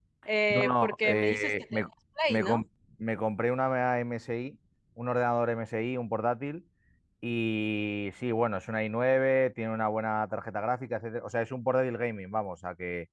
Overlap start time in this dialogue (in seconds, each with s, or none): 0.5 s